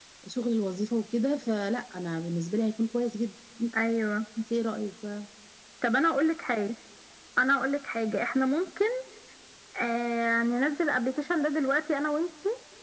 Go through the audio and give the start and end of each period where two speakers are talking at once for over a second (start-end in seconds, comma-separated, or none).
none